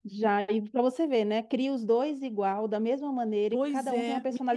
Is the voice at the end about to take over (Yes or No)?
Yes